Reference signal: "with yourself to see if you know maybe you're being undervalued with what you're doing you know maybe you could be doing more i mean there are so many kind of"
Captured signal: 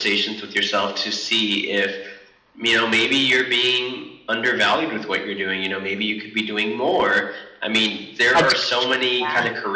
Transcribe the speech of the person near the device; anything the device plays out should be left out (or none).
I do. Yeah.